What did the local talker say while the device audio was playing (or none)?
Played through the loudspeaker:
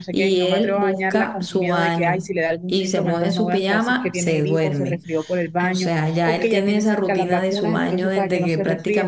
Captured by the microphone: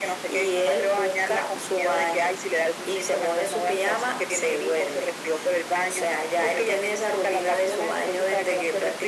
none